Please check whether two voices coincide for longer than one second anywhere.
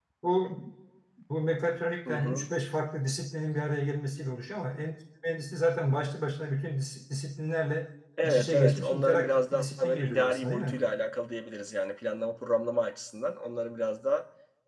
Yes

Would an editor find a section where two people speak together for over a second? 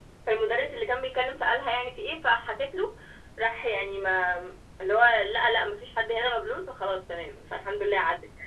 No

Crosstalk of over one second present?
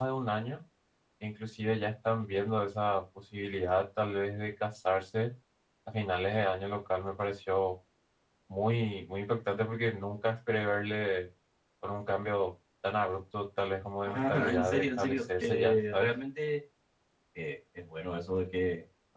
Yes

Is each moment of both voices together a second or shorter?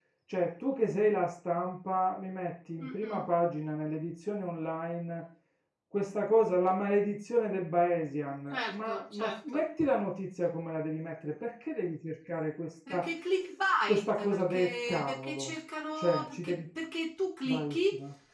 No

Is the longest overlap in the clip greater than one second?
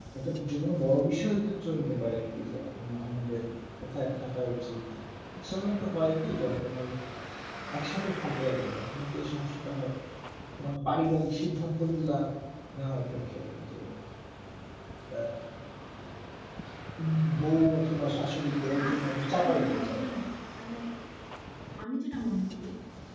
Yes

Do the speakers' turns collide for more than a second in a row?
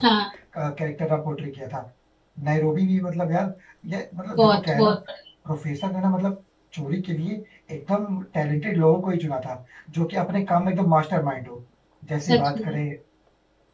No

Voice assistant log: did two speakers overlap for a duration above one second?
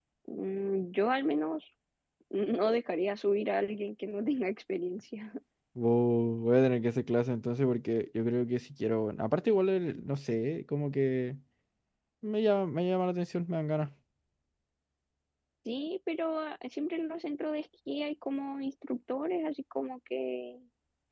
No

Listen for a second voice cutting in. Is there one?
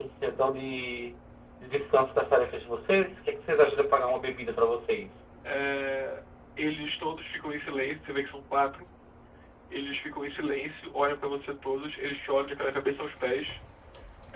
No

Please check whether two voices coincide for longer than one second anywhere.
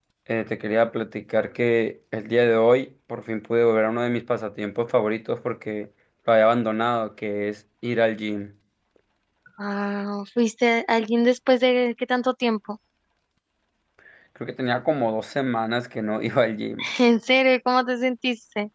No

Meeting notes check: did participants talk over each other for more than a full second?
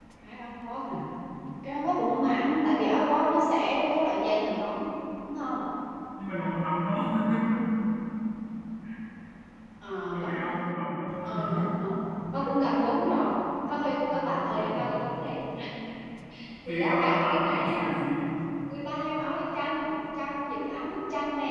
Yes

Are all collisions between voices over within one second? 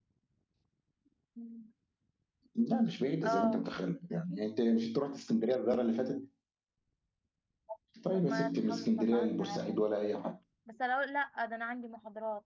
No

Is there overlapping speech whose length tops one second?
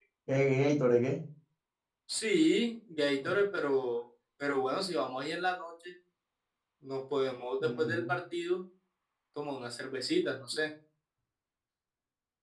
No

